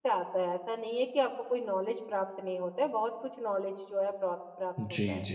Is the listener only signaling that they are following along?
No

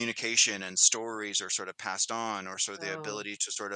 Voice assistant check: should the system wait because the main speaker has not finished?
Yes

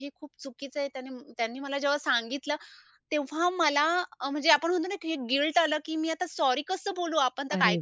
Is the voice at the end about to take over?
Yes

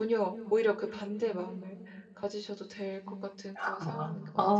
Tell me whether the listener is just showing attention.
No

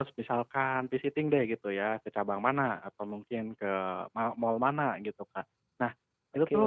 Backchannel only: Yes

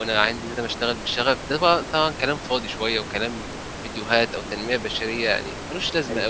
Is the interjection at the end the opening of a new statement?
Yes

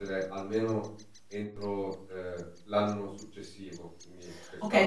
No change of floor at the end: No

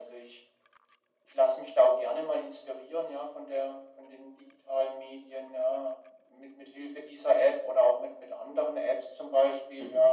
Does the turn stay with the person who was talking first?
Yes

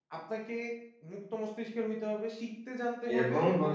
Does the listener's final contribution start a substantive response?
Yes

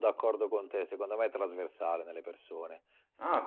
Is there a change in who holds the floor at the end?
Yes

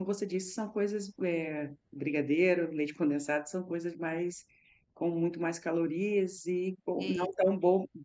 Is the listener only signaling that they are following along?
Yes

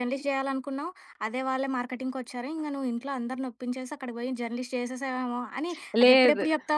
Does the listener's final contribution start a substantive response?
No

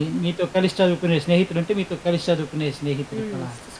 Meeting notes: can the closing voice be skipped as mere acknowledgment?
No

